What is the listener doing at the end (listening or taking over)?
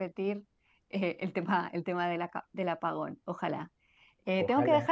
listening